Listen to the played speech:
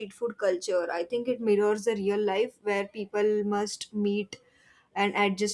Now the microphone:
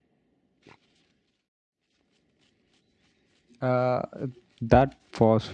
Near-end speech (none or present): present